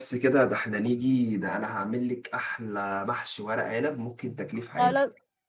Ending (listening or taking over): taking over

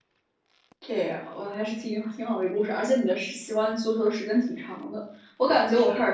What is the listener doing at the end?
listening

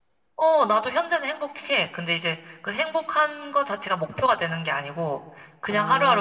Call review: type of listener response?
listening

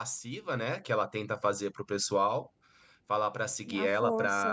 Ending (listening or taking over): listening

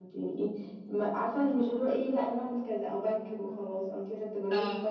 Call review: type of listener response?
listening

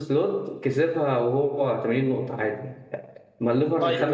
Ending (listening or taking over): listening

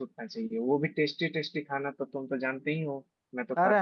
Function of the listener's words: taking over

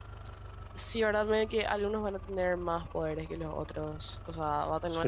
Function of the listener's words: taking over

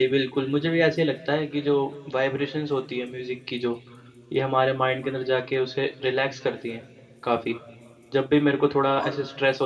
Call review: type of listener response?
listening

